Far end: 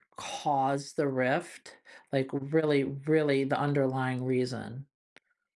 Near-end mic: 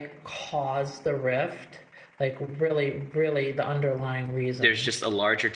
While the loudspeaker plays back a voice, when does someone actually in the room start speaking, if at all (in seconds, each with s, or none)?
4.6 s